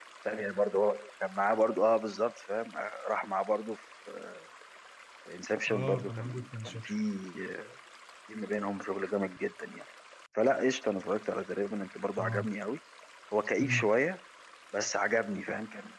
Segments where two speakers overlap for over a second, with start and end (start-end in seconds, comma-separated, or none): 5.7-6.9